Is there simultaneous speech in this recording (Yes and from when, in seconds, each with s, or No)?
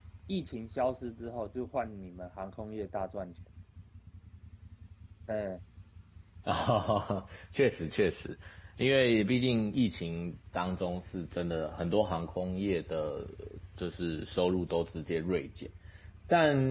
No